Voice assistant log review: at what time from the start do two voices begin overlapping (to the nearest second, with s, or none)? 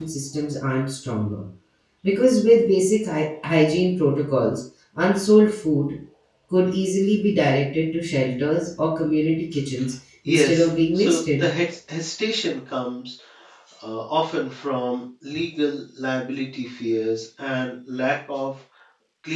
10 s